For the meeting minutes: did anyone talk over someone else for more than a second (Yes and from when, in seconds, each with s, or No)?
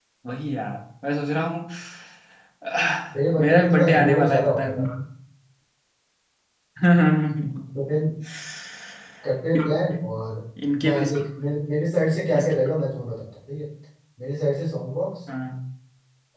Yes, from 3.4 s